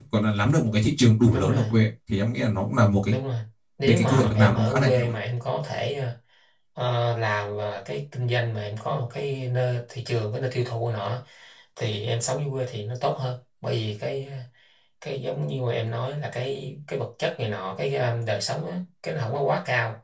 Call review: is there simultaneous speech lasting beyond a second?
Yes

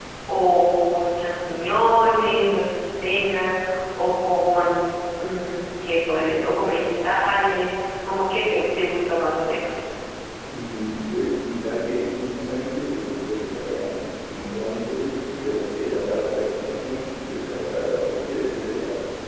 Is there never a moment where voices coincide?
Yes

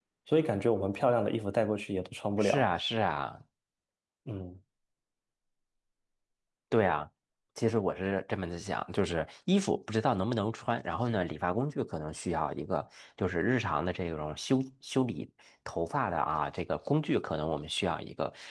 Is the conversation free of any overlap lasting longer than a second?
Yes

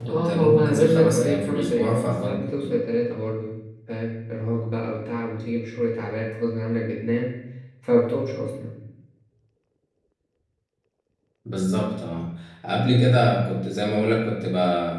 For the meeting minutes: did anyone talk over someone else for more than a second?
Yes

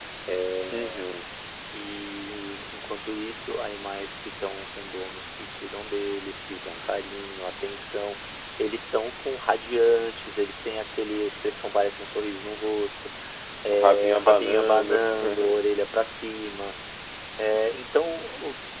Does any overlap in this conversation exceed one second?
Yes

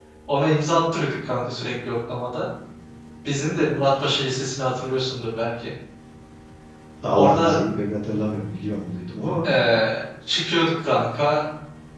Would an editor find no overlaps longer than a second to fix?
Yes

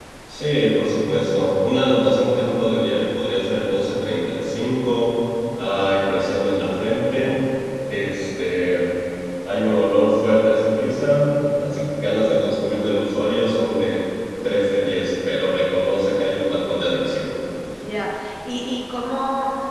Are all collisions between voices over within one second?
Yes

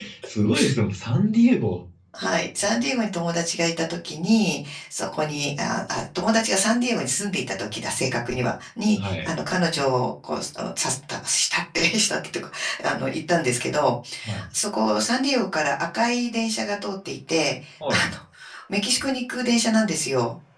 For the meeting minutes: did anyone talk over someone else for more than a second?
No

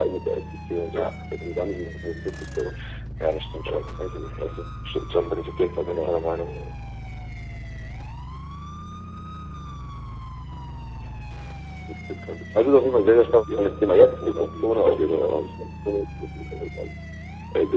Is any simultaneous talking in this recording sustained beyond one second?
Yes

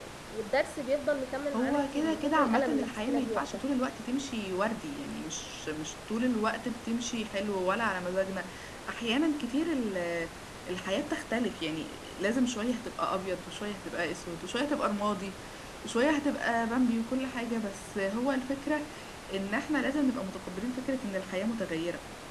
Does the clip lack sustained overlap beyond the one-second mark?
No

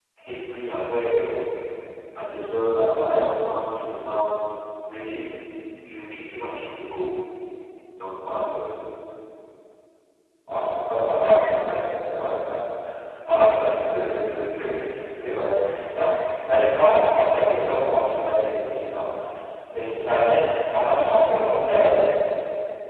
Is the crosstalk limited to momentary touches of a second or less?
Yes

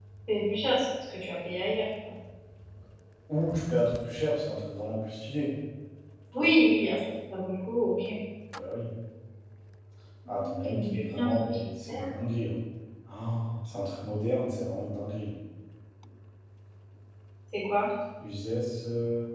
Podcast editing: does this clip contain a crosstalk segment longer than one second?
Yes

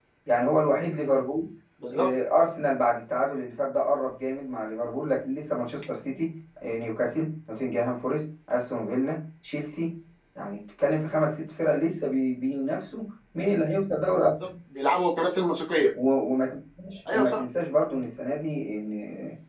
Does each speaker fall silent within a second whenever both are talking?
Yes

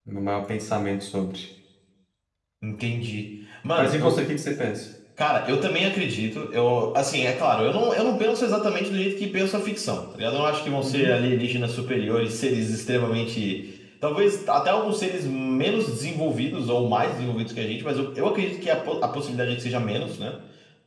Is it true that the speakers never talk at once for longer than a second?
Yes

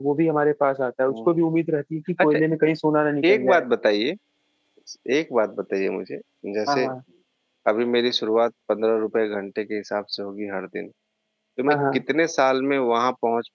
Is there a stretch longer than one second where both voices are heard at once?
No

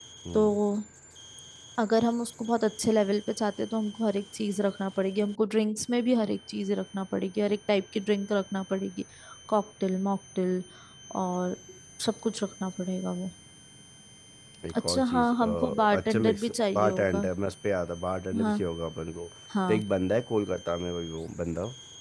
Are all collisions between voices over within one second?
No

